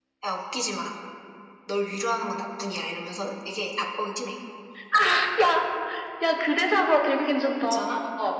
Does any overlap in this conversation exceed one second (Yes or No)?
No